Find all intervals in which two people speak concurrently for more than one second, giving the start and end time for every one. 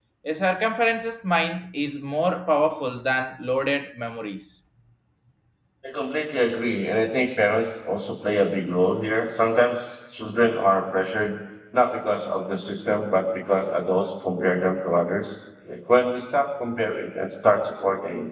none

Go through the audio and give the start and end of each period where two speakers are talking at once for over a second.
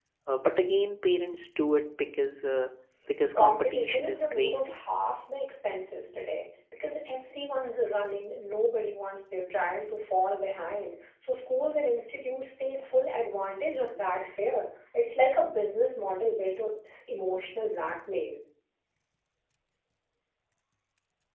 3.3-4.7

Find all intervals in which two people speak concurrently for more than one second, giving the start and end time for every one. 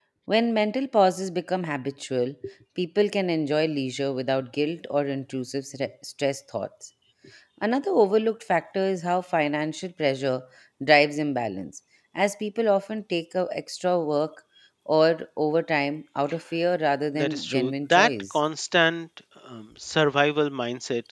17.1-18.4

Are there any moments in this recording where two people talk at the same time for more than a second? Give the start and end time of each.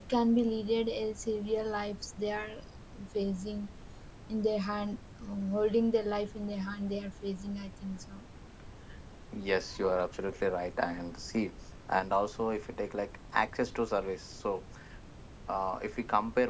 none

